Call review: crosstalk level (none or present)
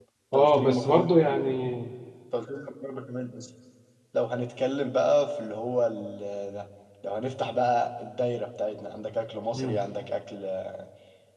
present